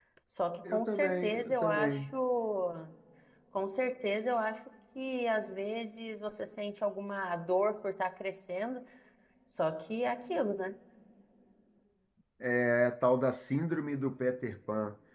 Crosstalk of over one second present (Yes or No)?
Yes